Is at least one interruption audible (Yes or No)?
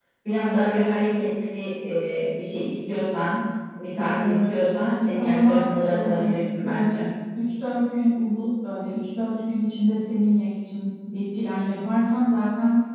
Yes